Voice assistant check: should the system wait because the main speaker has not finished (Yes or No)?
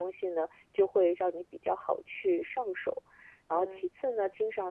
Yes